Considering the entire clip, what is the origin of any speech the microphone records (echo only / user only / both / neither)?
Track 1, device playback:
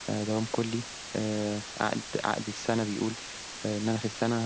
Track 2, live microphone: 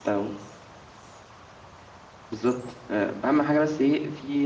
user only